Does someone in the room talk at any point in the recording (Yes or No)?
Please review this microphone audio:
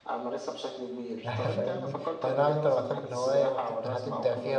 Yes